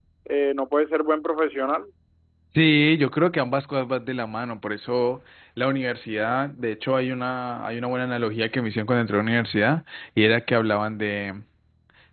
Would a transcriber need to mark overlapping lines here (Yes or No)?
No